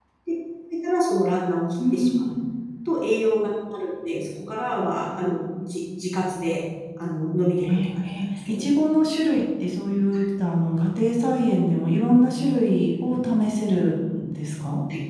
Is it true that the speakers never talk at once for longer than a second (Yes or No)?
Yes